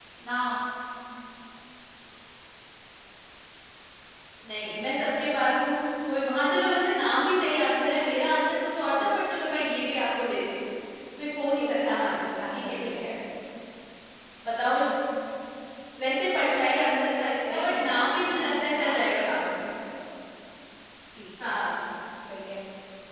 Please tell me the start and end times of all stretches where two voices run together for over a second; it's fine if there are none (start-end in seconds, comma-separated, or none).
11.6-13.1, 17.5-19.5